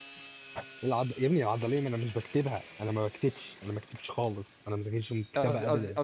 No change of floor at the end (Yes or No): No